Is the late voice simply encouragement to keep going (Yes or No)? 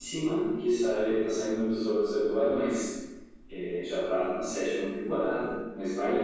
Yes